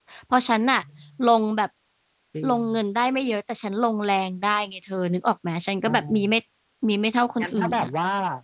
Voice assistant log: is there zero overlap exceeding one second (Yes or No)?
Yes